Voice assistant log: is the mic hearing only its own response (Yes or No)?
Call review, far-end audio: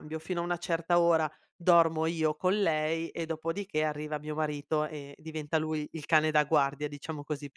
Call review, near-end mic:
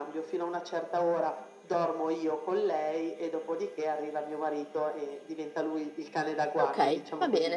No